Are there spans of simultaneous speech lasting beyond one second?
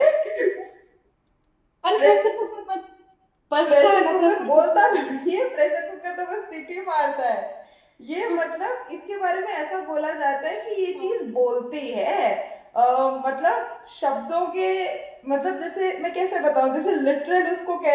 Yes, from 3.7 s

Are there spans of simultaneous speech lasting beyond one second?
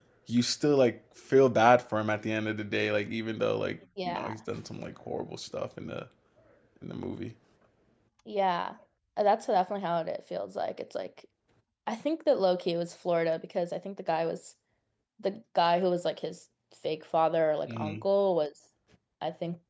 No

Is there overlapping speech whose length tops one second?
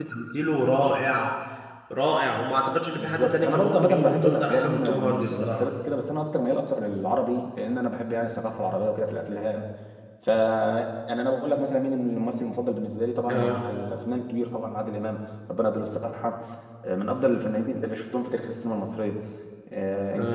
Yes, from 3.0 s

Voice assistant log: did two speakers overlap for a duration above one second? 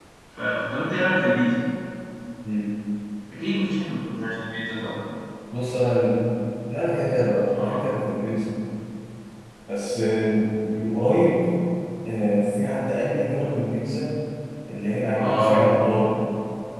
No

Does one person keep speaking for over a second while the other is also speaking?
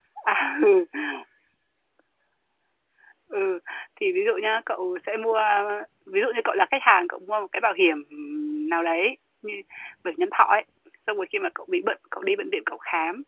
No

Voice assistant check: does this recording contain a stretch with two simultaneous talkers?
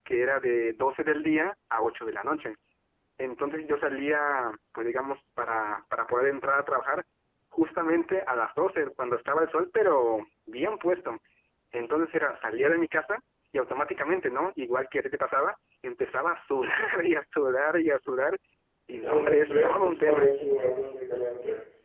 Yes, from 18.9 s

